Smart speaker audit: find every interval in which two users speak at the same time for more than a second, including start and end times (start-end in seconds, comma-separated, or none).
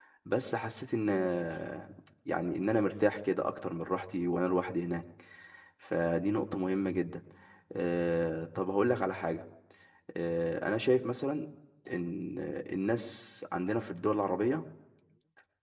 none